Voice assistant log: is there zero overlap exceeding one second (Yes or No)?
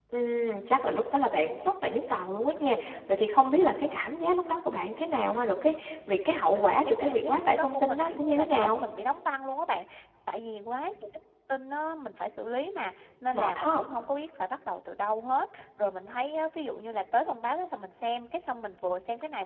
No